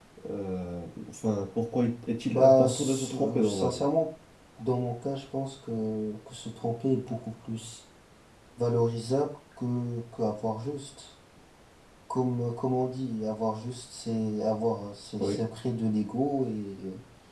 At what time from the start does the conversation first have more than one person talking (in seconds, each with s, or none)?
2.3 s